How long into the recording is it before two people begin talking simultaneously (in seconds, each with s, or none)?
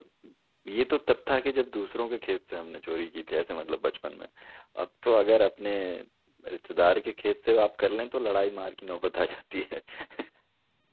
none